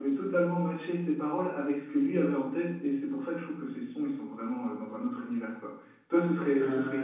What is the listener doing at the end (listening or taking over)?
listening